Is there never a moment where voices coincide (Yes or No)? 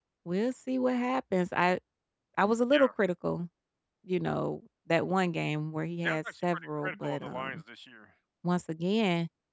No